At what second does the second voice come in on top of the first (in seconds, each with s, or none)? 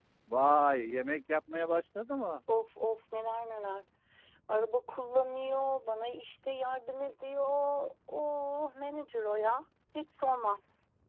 none